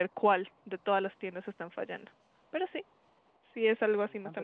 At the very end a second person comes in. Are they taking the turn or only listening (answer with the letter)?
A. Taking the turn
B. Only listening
A